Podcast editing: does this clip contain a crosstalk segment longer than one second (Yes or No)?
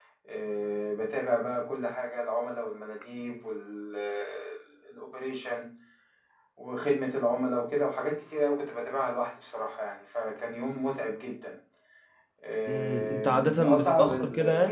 Yes